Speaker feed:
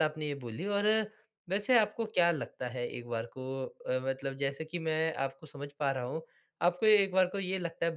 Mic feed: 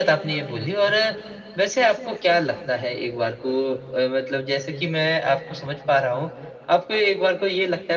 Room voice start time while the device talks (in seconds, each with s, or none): none